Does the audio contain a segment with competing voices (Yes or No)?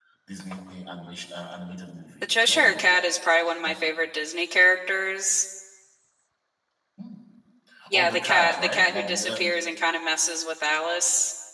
Yes